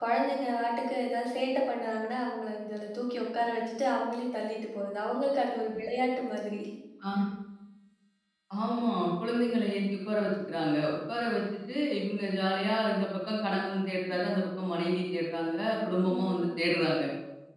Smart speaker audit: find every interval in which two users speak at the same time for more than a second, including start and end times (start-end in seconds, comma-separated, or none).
none